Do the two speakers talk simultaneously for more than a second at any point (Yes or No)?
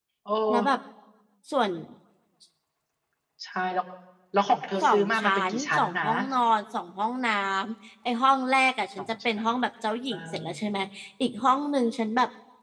Yes